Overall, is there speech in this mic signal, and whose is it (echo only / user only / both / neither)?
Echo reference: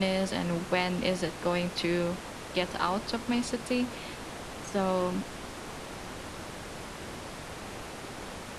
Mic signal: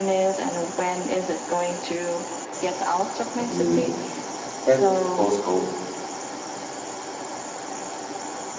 both